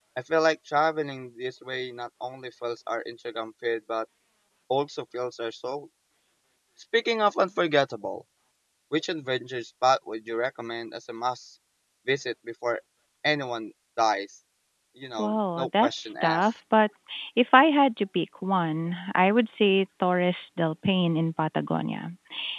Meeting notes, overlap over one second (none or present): present